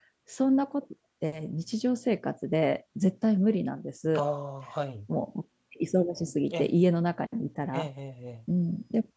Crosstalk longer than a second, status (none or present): none